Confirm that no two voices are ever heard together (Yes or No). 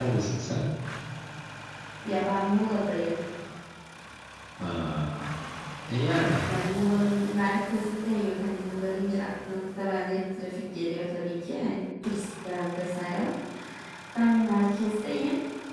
Yes